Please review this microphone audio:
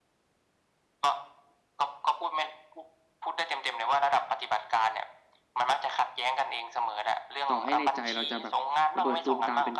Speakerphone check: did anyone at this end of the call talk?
Yes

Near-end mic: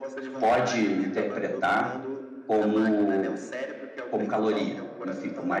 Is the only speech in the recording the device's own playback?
No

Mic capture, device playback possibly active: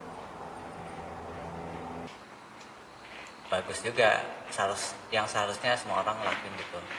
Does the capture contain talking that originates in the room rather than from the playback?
Yes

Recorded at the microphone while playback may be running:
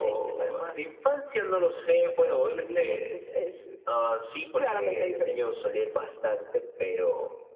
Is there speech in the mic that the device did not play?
No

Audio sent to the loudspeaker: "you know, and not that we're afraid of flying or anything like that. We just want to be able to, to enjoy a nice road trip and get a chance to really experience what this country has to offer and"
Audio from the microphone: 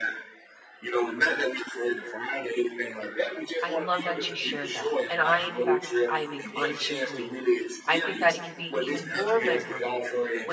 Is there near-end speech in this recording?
Yes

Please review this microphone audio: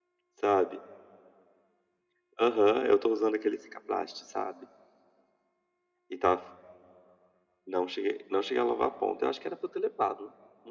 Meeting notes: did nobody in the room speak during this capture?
Yes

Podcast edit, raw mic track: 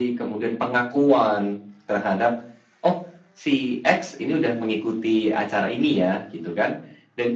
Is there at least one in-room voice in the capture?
No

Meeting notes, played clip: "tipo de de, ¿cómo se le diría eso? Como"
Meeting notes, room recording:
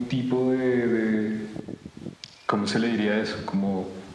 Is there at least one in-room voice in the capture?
No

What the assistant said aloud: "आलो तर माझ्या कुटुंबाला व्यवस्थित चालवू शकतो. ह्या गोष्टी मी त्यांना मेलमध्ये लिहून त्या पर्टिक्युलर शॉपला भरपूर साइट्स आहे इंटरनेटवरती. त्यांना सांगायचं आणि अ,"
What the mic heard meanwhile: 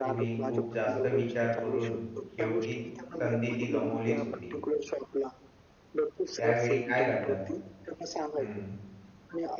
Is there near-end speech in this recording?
Yes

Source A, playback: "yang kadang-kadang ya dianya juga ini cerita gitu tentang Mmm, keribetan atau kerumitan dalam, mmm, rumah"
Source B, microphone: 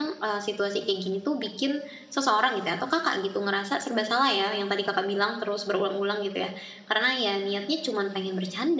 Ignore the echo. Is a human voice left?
Yes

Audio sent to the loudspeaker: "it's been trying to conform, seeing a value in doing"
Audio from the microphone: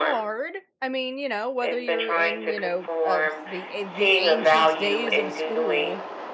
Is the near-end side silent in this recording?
No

